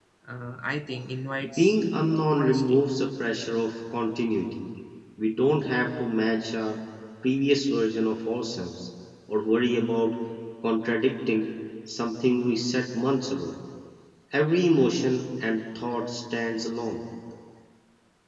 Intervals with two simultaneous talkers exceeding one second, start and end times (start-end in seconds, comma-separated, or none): none